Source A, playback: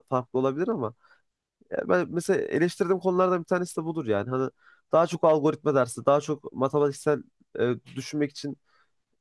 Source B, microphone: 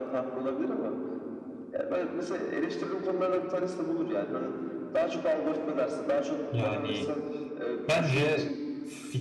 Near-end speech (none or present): present